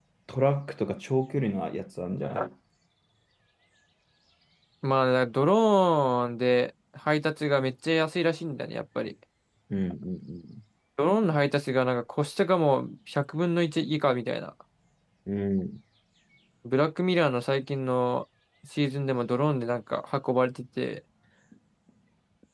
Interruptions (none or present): none